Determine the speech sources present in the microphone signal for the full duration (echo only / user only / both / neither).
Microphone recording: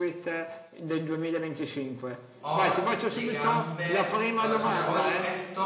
both